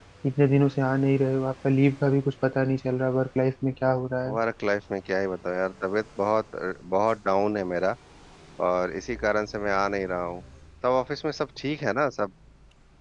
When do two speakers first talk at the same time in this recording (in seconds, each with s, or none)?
none